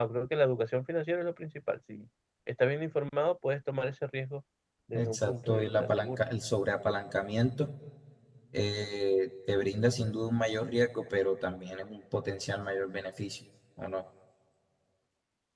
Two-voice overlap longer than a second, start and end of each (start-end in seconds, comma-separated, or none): 4.9-6.2